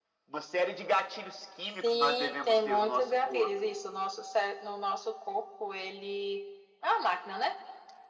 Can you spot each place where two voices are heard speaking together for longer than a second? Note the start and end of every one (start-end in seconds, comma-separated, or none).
1.8-3.7